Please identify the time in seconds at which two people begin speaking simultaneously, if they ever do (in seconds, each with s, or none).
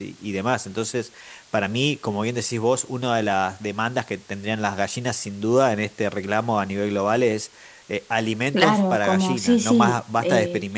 8.5 s